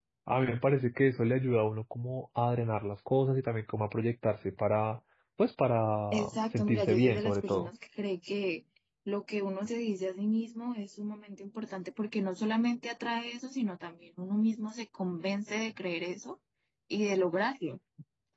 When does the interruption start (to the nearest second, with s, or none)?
6 s